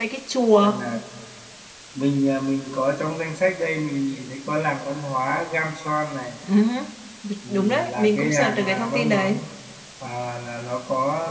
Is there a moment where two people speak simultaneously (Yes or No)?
Yes